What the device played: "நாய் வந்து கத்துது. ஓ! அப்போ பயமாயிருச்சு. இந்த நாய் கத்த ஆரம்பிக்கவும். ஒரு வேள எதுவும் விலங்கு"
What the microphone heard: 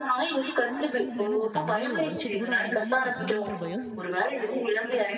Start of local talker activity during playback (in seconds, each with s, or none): 0.7 s